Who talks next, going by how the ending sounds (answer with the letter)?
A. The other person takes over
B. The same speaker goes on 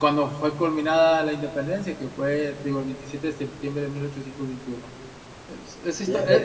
B